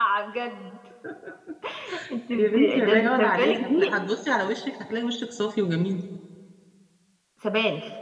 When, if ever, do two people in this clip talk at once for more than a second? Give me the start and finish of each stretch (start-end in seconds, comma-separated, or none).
2.3-3.9